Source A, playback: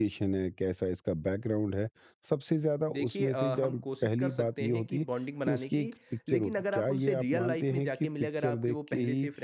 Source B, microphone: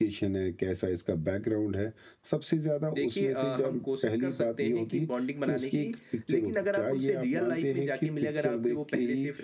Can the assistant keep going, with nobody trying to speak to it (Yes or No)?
Yes